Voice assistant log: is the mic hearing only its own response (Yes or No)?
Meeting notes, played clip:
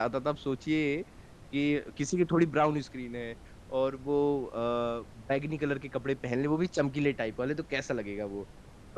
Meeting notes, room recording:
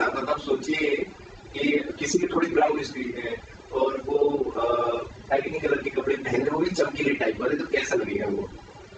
Yes